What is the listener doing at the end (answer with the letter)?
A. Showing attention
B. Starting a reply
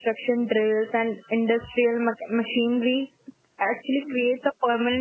A